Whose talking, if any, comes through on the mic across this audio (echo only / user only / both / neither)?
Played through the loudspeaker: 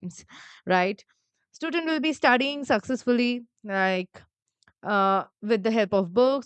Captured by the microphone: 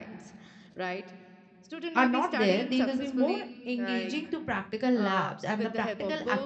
both